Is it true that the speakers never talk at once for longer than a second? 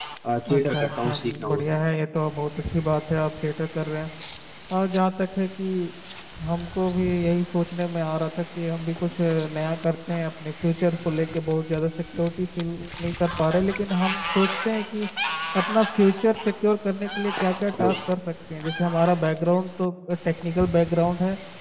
No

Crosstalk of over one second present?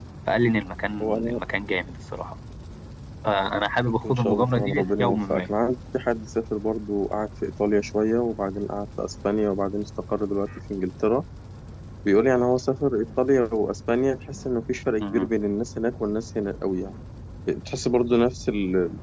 Yes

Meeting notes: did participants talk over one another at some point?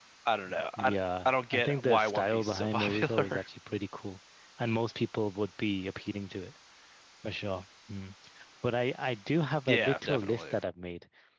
Yes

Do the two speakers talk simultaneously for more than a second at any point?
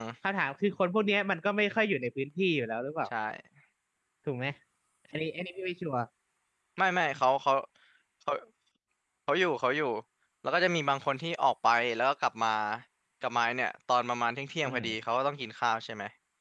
No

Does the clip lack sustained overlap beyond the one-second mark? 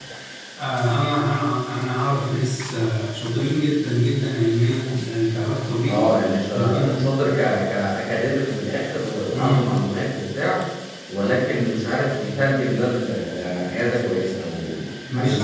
Yes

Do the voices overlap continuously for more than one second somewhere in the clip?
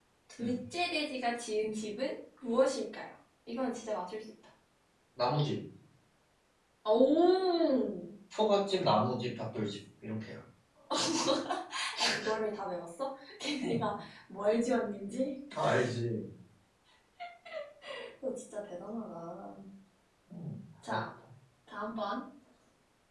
No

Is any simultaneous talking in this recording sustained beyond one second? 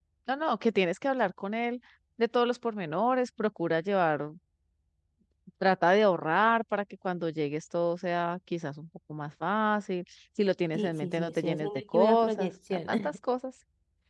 Yes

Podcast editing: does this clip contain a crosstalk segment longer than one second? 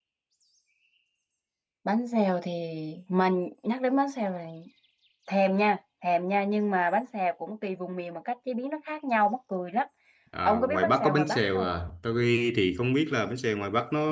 Yes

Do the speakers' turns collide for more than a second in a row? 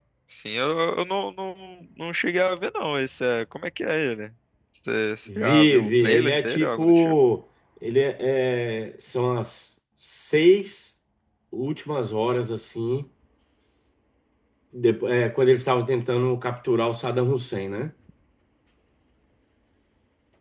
Yes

